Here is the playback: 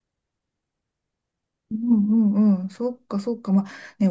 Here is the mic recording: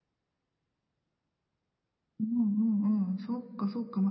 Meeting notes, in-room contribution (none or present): none